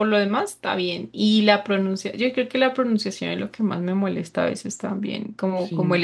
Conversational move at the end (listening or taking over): listening